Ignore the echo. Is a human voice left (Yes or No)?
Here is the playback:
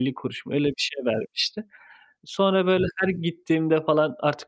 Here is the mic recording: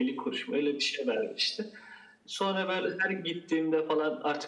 No